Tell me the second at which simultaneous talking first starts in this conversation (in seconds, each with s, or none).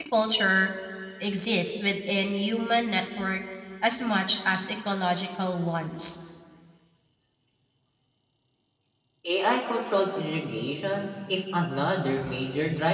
none